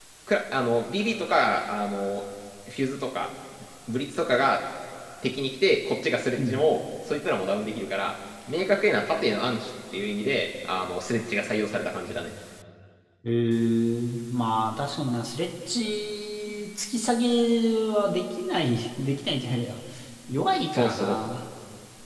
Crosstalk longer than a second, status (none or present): none